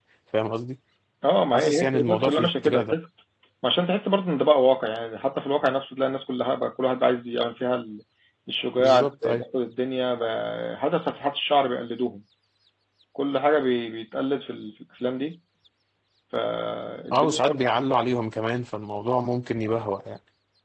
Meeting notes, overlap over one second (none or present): present